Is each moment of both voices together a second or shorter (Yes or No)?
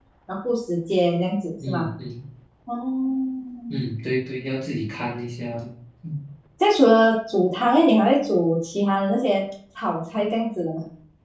Yes